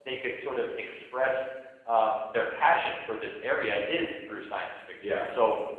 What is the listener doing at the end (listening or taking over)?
listening